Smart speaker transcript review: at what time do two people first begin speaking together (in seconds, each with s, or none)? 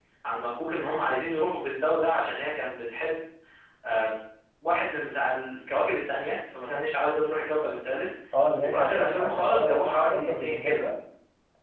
8.6 s